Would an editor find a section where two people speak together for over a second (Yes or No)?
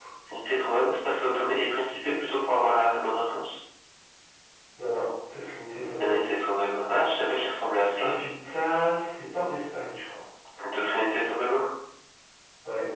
No